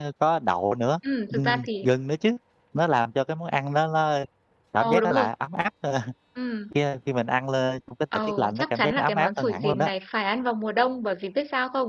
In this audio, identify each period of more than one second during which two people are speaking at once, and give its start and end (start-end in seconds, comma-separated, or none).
8.3-9.9